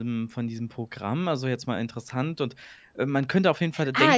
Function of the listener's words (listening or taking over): taking over